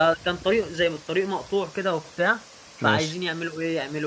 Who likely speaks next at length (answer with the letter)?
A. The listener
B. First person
B